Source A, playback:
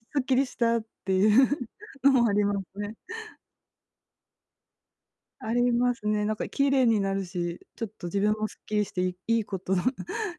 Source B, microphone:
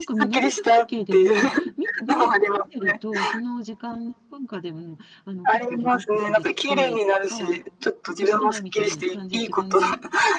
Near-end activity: present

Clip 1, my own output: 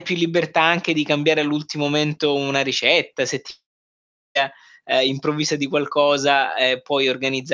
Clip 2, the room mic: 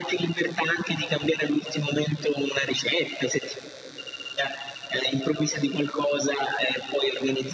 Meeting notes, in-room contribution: none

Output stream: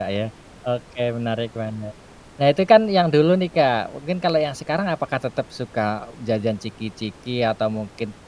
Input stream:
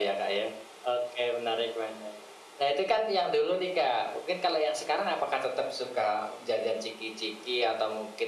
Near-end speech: none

